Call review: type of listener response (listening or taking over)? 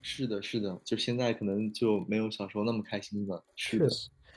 taking over